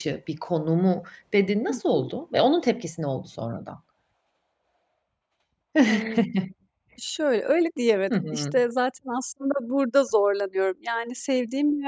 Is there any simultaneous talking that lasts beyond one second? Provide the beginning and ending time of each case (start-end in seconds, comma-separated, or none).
none